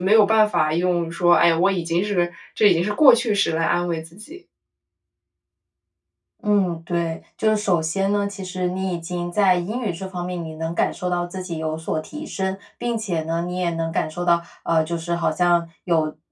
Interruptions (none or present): none